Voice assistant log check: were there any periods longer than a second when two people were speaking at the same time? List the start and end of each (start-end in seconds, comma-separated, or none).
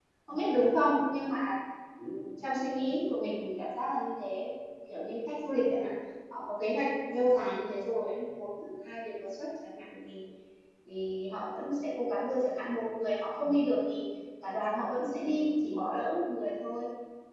none